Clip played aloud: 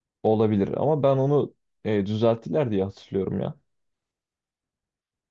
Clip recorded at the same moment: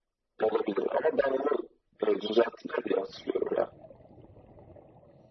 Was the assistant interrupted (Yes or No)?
No